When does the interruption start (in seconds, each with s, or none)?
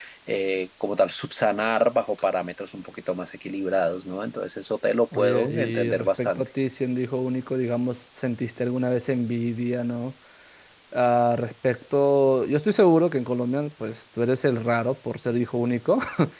5.1 s